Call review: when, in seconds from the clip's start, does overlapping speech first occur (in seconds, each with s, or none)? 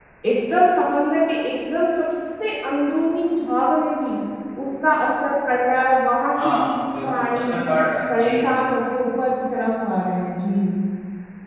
6.3 s